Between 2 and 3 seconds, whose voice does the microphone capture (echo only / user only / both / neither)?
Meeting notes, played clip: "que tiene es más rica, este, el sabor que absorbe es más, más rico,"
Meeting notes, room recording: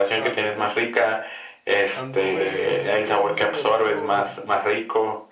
both